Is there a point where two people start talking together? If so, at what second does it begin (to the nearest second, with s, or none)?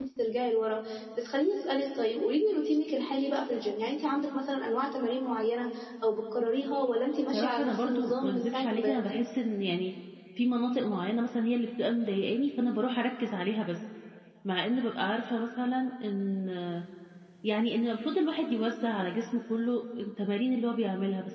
7 s